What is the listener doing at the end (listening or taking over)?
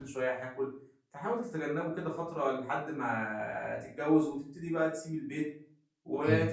listening